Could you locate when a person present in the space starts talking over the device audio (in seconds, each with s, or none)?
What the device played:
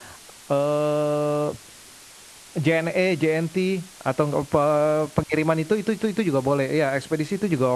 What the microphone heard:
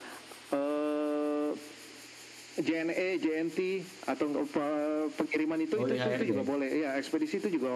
5.8 s